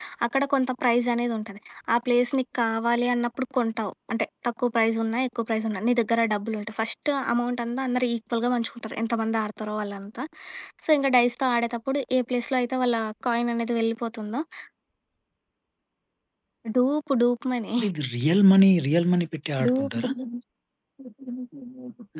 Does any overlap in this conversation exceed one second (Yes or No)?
No